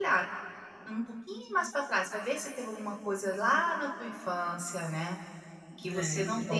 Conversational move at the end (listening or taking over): listening